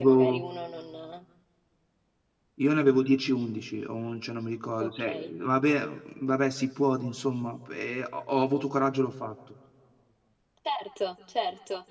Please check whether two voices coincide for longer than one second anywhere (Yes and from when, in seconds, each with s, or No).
No